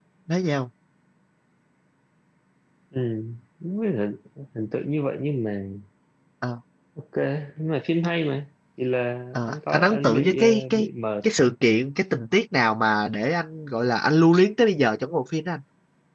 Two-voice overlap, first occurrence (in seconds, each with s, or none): 9.3 s